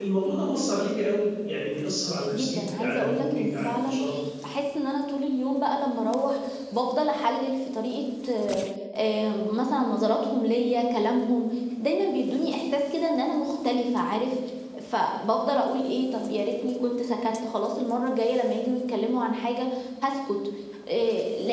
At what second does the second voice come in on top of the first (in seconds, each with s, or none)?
2.3 s